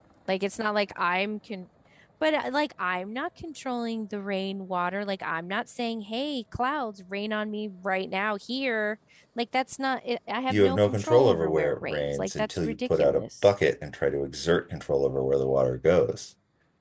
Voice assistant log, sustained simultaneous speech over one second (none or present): present